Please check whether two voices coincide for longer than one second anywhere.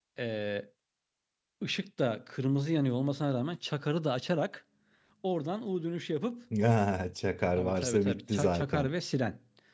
Yes, from 7.6 s

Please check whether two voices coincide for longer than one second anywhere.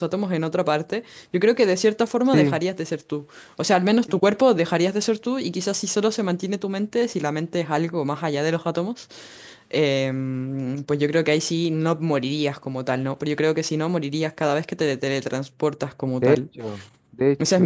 No

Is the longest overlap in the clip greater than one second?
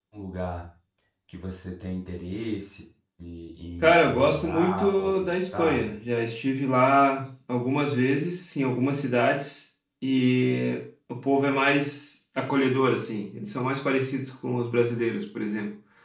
Yes, from 4.0 s

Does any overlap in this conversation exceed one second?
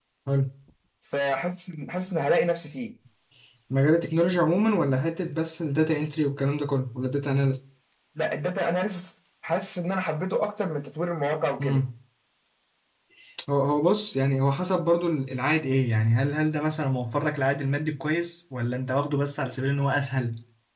No

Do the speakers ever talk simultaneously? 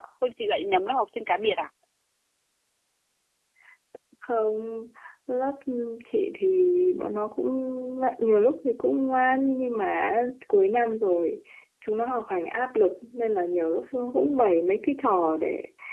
No

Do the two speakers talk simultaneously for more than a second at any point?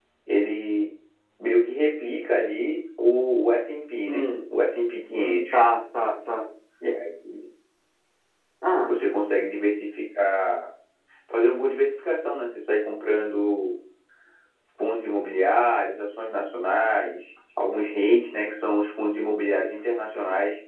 No

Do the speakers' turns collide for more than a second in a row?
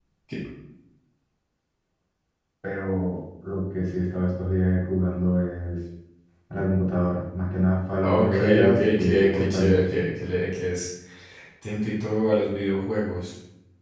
Yes, from 8.0 s

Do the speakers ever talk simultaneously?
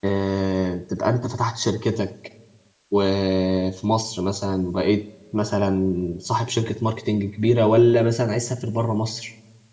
No

